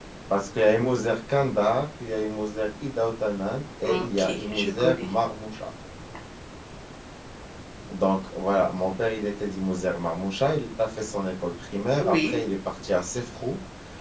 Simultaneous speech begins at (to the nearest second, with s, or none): 4 s